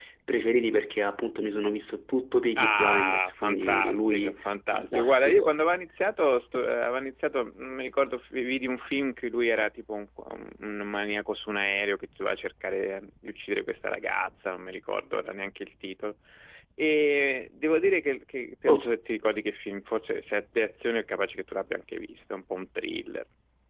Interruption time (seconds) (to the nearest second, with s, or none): 3 s